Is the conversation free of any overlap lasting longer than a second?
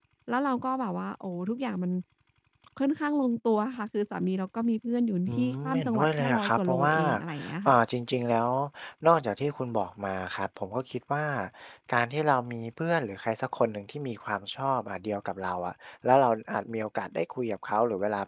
No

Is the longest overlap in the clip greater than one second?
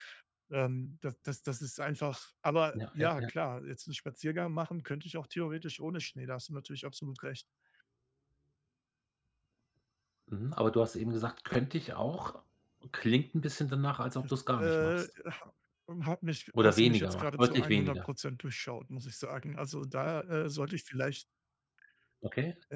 Yes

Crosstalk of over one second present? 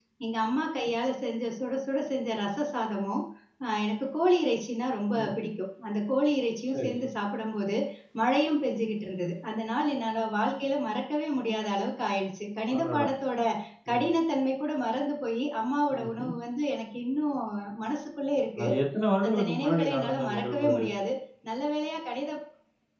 Yes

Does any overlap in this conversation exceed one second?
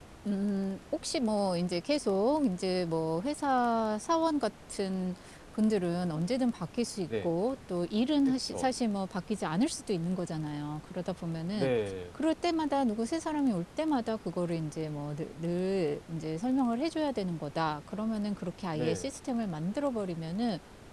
No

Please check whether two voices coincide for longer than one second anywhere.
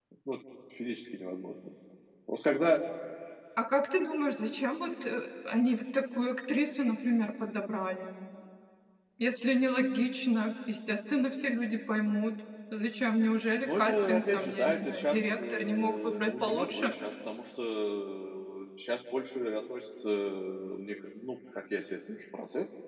Yes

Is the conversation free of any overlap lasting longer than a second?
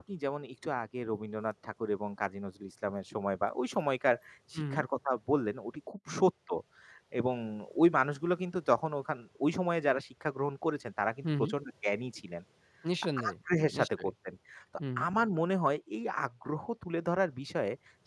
Yes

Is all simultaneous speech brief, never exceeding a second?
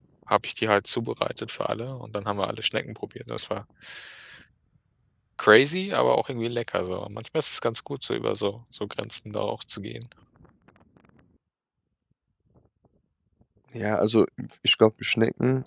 Yes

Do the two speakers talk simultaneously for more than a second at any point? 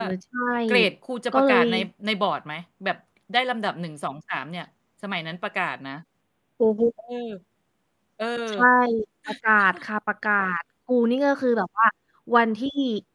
No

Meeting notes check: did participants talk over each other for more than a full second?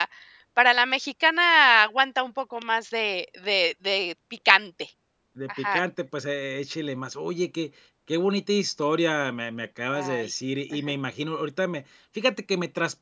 No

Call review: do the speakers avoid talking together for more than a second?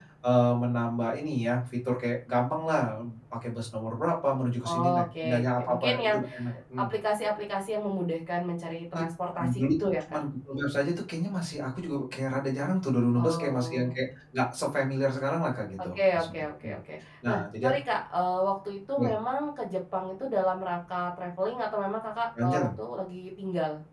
No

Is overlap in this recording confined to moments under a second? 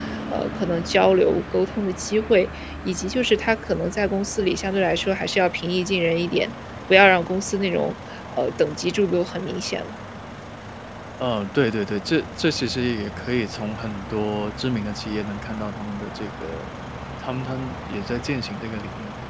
Yes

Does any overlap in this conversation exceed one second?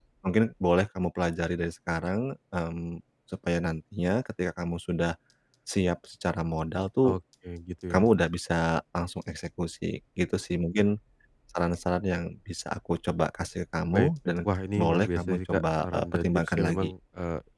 Yes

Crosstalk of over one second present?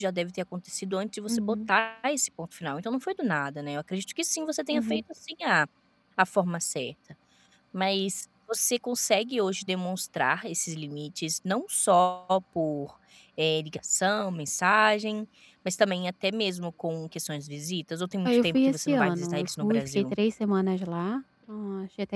Yes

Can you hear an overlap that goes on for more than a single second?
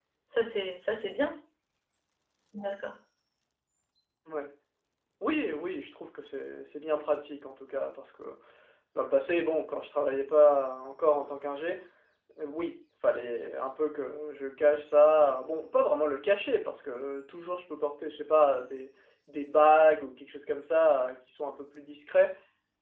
No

